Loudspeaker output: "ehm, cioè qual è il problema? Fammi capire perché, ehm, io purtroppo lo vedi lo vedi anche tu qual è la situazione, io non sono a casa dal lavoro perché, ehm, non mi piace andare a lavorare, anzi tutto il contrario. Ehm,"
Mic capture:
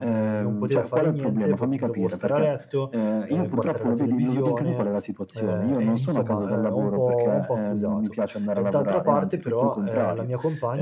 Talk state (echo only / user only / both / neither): both